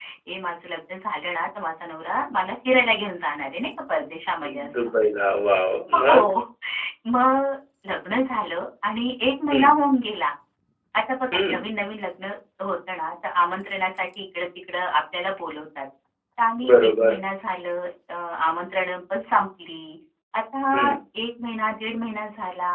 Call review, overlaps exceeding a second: none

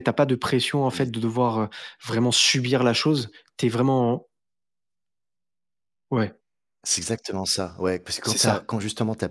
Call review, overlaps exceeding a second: none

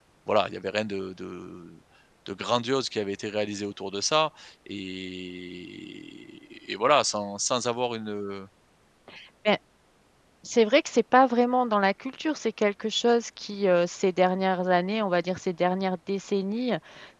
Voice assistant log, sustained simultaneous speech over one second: none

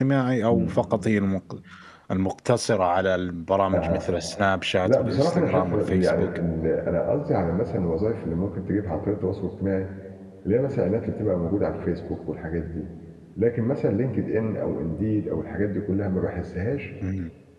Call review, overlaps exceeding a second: present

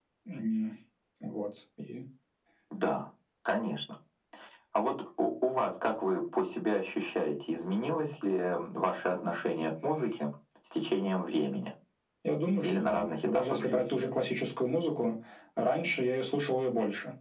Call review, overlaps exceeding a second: present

